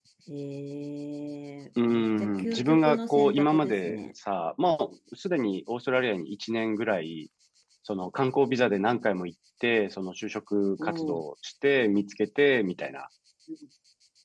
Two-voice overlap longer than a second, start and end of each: 1.9-4.0

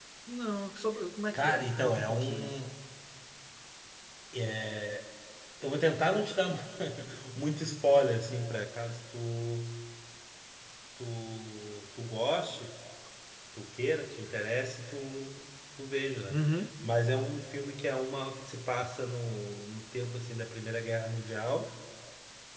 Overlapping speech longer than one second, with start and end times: 1.3-2.6

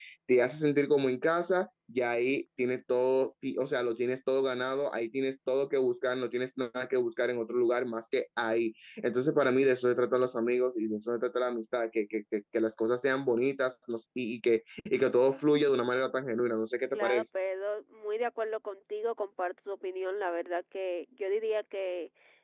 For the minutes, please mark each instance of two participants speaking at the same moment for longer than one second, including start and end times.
none

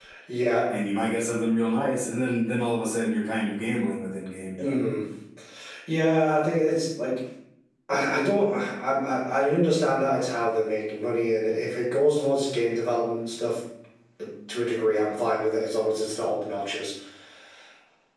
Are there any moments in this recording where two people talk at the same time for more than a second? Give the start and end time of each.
none

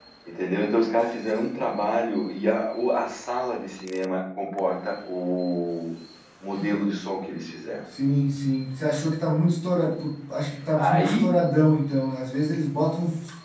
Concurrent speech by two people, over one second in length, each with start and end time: none

